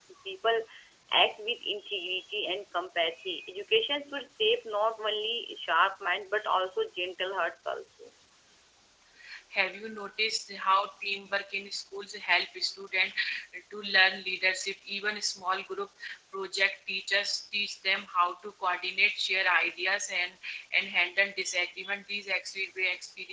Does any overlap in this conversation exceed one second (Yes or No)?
No